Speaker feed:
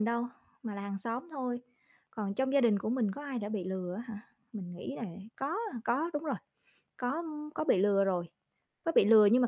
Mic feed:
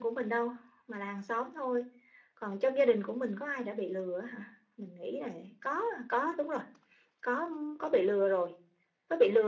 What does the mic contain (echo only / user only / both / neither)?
echo only